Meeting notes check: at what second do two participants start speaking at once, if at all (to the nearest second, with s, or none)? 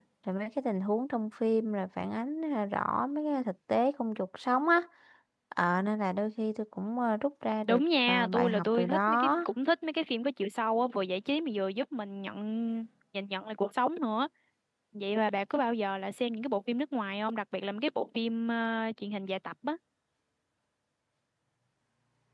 8 s